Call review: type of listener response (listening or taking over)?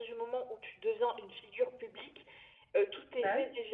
listening